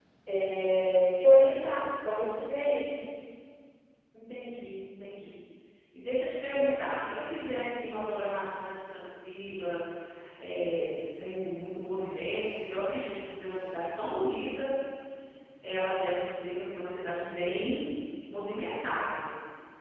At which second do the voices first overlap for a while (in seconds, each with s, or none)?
none